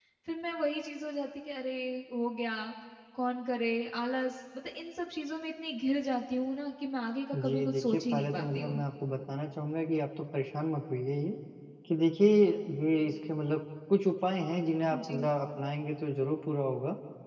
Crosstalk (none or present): present